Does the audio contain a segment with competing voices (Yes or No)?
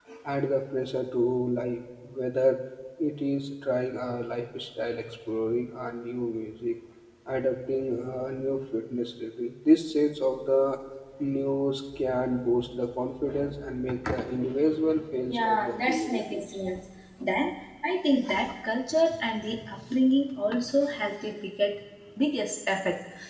Yes